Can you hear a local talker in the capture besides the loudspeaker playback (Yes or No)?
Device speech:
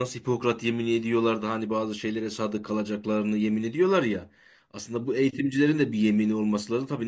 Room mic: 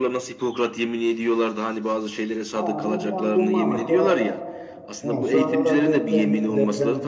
Yes